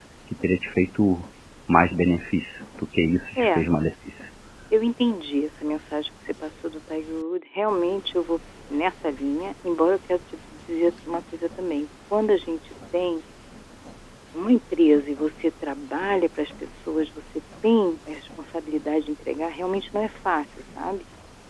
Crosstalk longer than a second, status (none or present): none